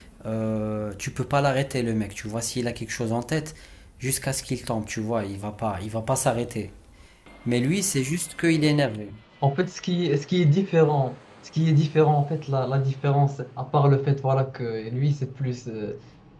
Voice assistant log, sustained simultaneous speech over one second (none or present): none